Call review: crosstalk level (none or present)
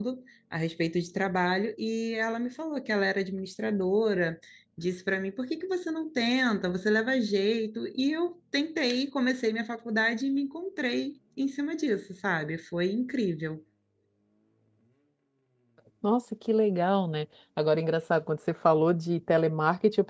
none